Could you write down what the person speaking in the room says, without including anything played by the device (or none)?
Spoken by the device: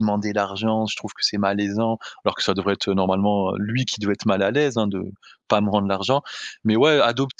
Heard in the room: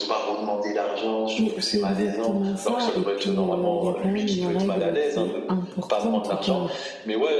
Mais c'est exactement ça et puis, heu, il y a quand même une règle qui est importante au cœur